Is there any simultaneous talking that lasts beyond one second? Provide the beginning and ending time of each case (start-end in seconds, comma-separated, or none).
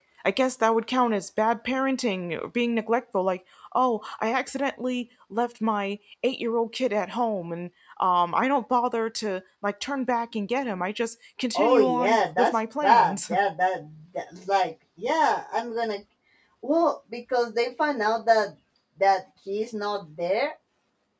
11.5-13.3